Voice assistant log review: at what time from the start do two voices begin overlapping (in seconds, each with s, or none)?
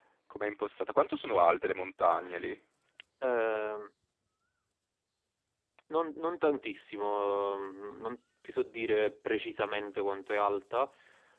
none